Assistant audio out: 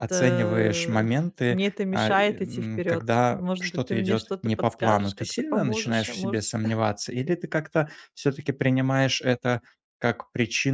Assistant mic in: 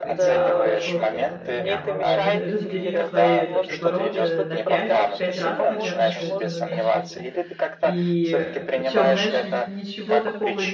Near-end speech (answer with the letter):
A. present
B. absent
A